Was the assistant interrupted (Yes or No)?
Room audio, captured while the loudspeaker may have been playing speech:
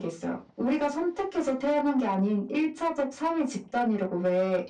No